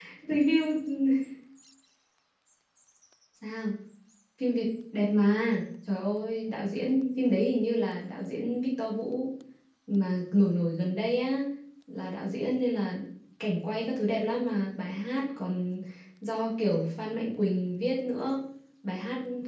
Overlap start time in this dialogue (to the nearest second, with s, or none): none